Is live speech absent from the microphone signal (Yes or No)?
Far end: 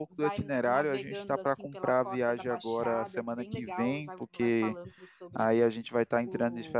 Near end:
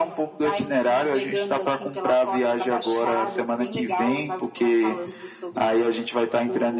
Yes